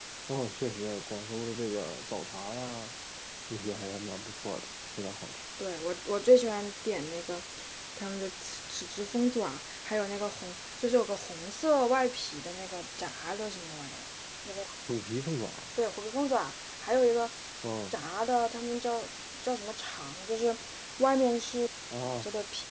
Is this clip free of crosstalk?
Yes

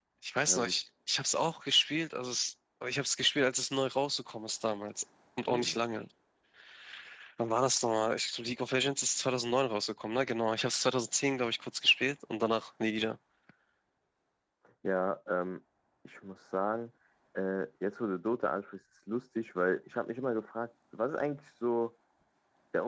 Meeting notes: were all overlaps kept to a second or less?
Yes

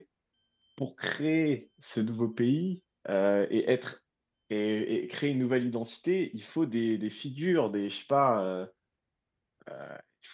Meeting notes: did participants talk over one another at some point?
No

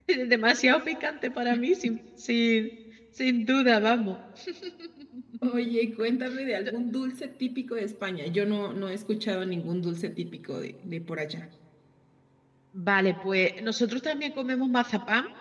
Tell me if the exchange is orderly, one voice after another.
Yes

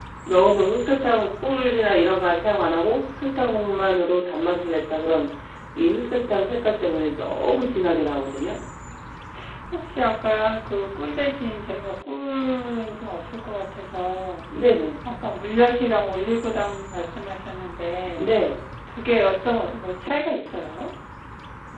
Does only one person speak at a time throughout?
Yes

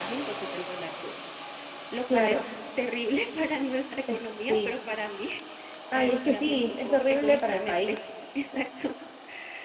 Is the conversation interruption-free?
No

